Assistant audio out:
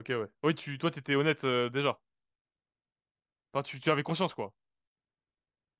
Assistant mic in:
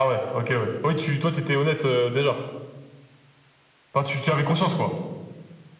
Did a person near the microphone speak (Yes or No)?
No